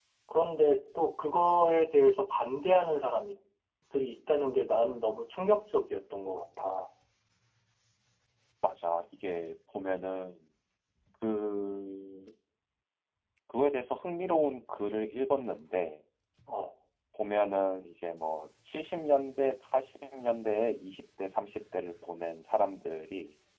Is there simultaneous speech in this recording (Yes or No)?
No